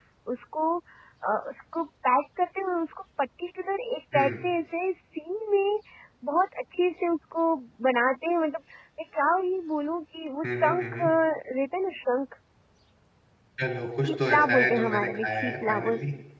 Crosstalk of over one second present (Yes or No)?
Yes